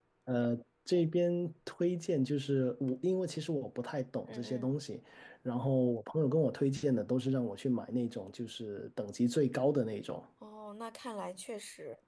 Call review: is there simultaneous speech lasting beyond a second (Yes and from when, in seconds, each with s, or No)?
No